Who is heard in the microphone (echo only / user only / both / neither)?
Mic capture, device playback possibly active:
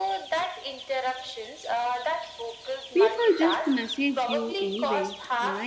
both